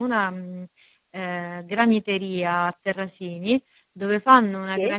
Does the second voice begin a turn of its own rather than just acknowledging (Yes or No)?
No